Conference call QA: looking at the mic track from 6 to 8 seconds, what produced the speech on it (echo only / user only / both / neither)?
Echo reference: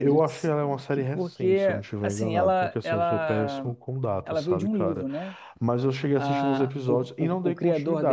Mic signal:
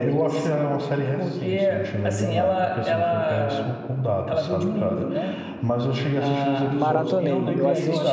both